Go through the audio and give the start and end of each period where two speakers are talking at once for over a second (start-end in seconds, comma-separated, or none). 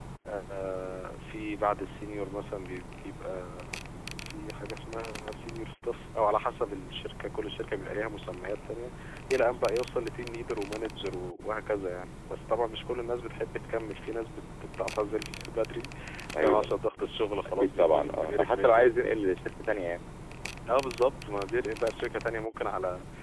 17.6-18.9